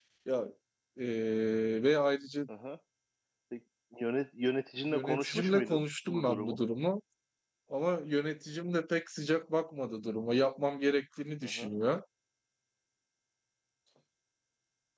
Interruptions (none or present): present